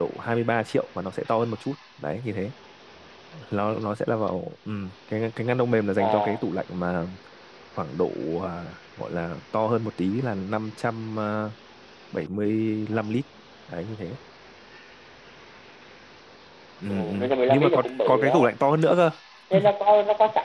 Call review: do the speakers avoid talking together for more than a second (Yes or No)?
No